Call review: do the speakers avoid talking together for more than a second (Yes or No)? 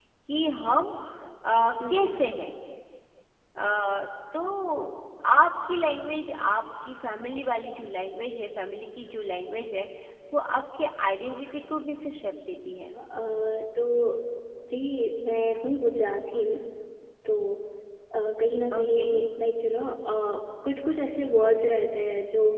Yes